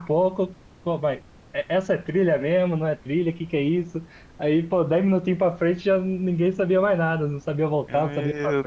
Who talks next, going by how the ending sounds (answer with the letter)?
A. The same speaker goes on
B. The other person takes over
B